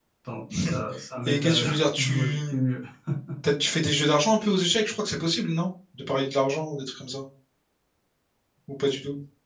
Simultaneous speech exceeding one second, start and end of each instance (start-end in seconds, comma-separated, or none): 1.2-2.6